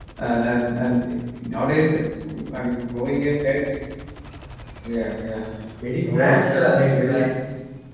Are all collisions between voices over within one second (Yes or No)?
No